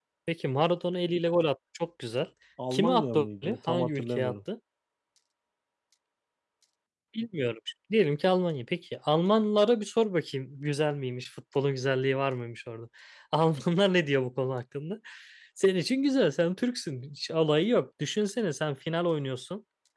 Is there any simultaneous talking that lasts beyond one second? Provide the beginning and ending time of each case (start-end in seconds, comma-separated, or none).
2.7-4.3